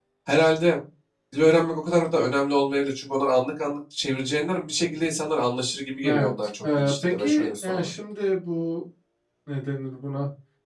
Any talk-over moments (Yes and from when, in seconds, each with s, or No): Yes, from 6.0 s